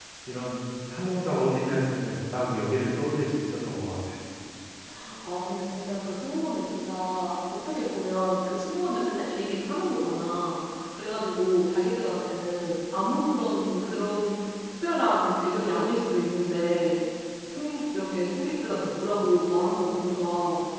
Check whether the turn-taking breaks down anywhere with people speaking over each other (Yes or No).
No